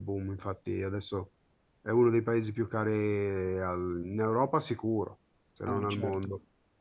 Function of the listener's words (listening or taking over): taking over